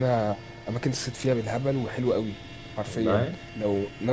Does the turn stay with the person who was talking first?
Yes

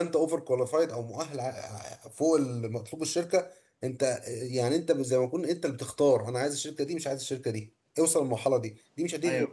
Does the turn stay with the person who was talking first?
Yes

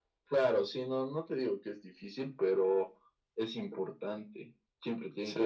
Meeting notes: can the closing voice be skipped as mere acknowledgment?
Yes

